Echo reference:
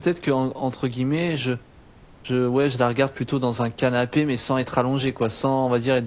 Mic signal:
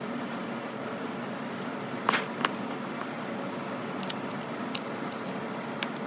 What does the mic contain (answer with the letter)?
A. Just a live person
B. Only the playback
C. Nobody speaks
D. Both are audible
C